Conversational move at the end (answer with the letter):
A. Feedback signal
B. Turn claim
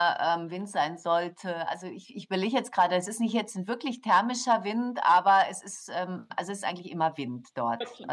A